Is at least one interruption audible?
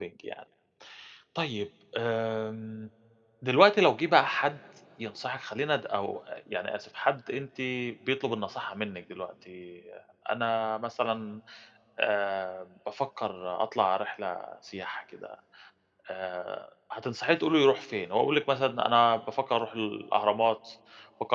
No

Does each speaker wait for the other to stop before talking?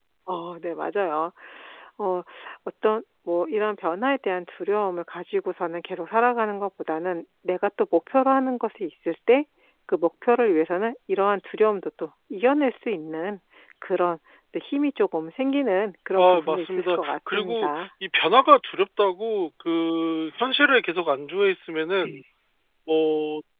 No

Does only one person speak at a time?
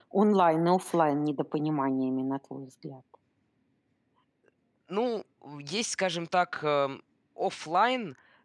Yes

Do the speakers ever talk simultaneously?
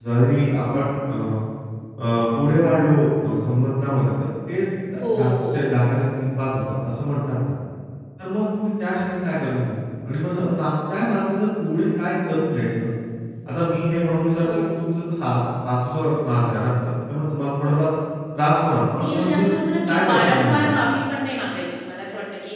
Yes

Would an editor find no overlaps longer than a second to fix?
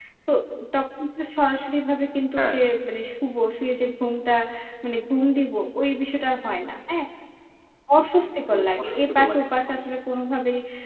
No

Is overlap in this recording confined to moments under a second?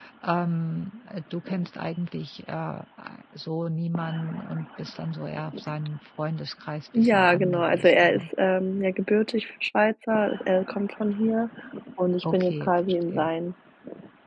No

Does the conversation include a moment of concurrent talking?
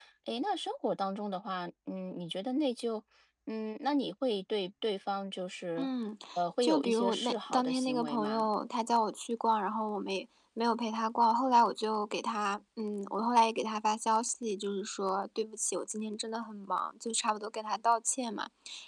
Yes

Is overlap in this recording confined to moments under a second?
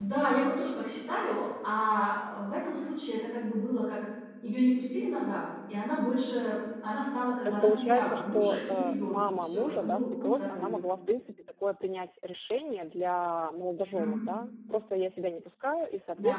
No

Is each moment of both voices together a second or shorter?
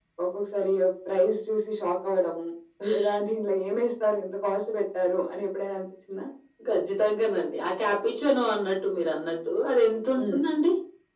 Yes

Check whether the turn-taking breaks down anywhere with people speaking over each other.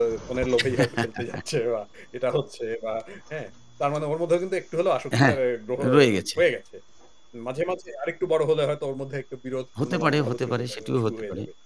Yes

